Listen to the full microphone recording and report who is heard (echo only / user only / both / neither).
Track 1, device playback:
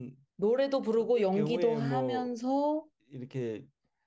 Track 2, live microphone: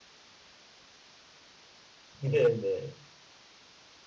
user only